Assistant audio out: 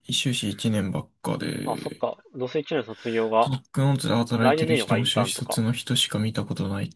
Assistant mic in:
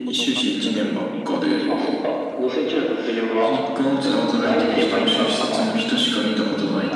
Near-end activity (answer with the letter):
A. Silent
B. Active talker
B